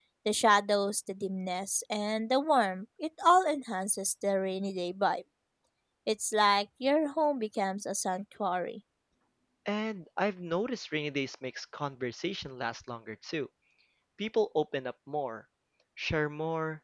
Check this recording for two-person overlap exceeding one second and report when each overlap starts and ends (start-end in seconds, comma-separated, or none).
none